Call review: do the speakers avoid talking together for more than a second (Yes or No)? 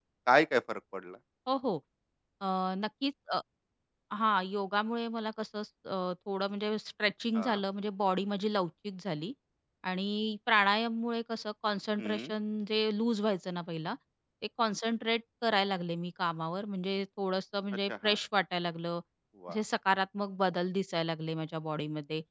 Yes